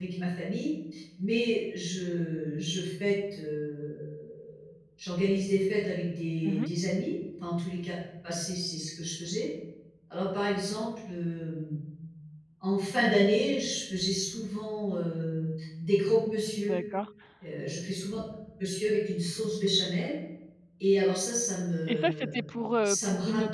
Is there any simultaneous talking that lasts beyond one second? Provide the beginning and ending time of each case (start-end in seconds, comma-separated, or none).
none